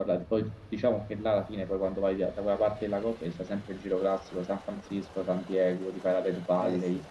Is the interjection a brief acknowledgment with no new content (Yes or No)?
Yes